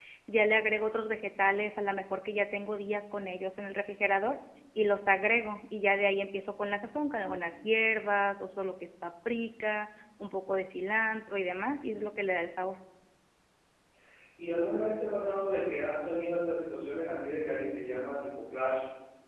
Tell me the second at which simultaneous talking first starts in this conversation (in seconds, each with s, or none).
none